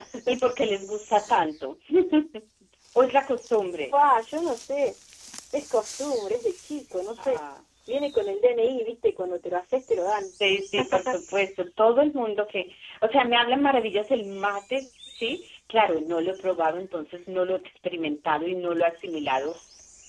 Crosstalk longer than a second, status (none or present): none